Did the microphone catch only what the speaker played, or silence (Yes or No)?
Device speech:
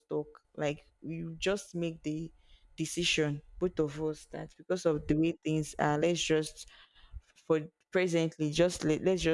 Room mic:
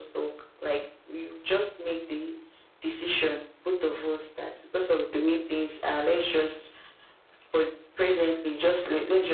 Yes